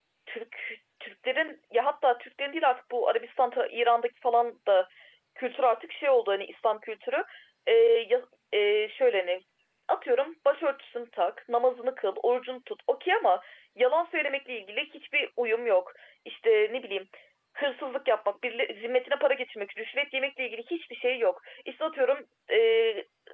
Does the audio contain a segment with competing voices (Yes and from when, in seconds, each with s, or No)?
No